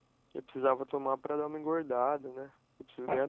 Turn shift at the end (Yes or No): Yes